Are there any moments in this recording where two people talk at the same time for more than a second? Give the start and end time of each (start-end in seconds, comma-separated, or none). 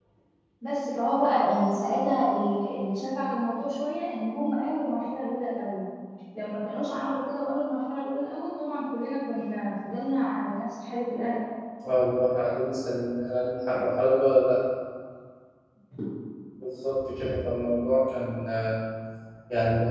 none